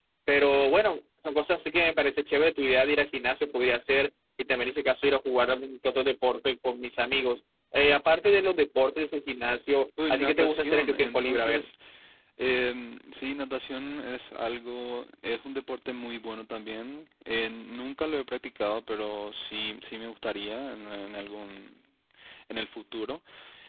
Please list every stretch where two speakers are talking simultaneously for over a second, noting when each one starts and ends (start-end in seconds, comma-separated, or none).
10.1-11.7